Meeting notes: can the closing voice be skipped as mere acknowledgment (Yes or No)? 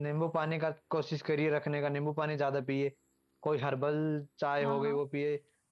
Yes